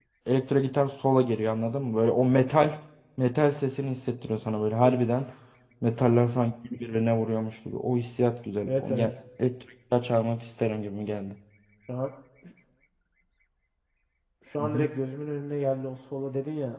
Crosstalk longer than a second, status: none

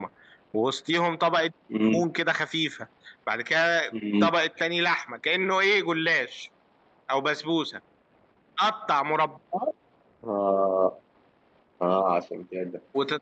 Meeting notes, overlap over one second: none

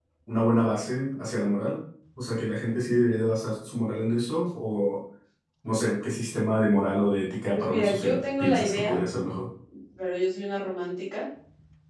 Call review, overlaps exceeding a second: present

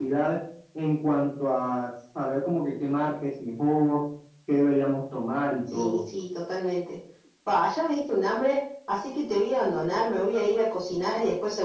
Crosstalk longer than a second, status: none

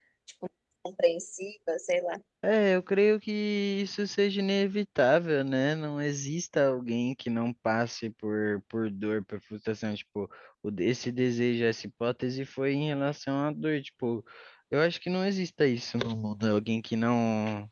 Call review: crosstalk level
none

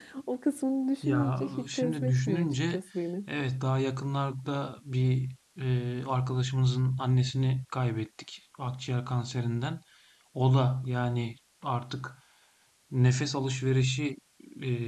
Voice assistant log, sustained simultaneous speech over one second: present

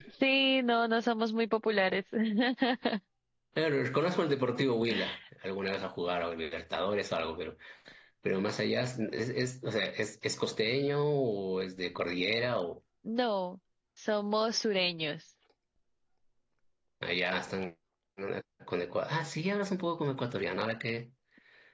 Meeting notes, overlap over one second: none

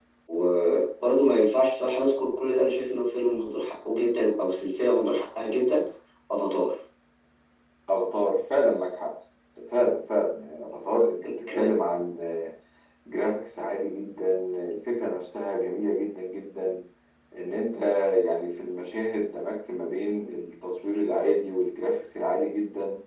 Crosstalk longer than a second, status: none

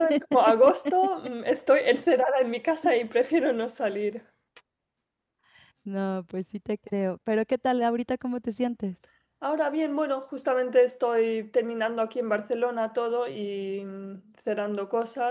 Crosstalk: none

